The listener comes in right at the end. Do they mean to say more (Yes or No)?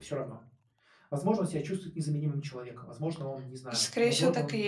Yes